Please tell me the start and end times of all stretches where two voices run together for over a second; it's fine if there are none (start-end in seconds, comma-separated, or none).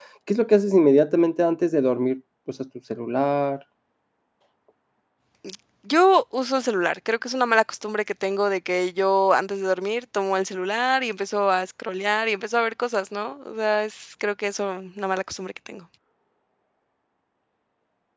none